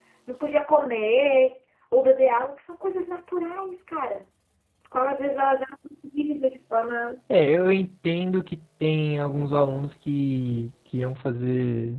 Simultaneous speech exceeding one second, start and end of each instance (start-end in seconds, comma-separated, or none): none